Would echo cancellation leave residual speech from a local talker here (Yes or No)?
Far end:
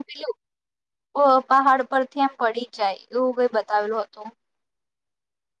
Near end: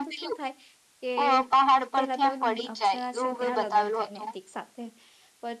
Yes